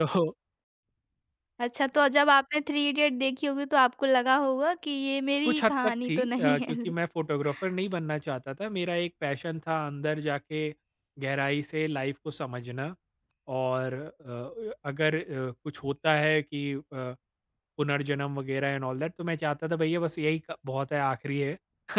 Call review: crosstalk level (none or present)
present